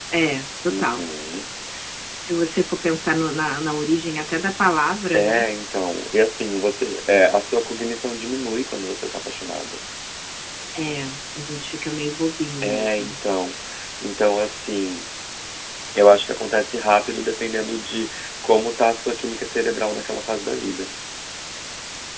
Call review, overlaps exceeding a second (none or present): none